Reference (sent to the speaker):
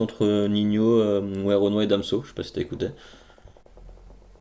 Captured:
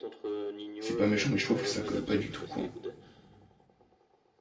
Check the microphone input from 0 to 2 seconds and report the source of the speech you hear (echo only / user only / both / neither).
both